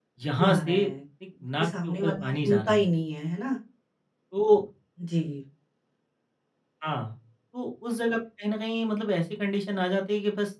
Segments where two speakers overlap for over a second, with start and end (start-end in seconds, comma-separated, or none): 1.6-2.9